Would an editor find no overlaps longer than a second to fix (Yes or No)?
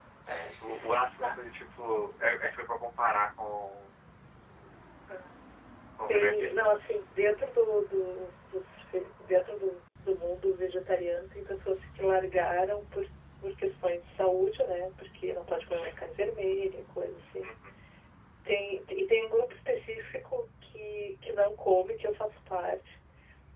Yes